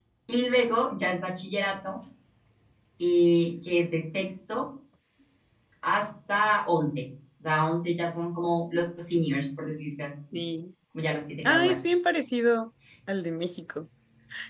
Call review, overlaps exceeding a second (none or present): none